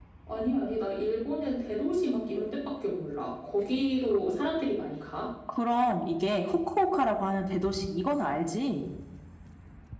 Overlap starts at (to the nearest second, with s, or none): none